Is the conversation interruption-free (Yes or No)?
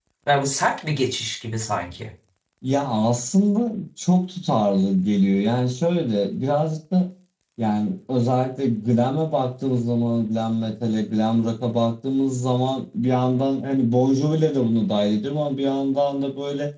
Yes